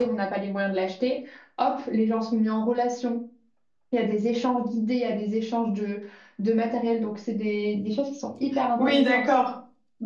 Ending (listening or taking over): taking over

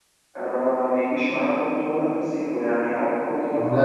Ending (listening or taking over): listening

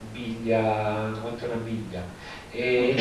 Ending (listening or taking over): listening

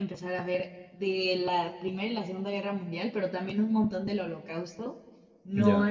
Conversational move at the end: listening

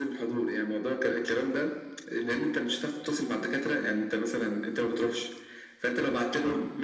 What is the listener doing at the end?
listening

